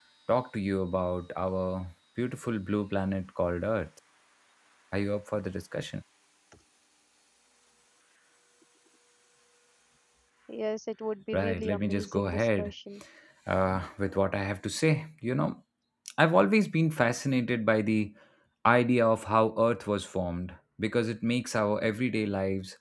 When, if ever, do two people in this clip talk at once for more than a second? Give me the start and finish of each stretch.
11.3-12.7

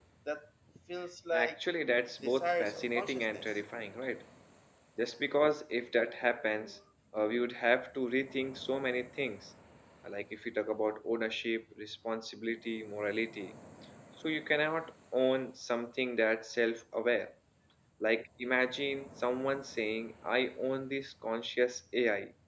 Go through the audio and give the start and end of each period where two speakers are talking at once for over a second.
2.2-3.6

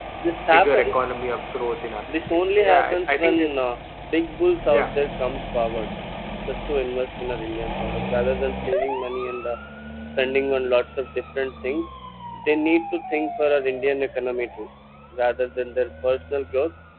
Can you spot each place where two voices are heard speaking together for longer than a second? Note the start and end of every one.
2.3-3.6

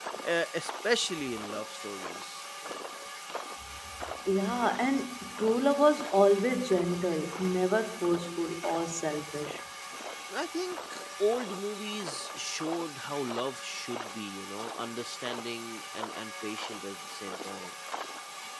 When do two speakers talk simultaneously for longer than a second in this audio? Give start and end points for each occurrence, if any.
none

